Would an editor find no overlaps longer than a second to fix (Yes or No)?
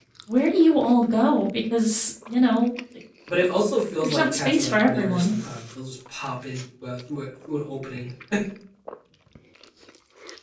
No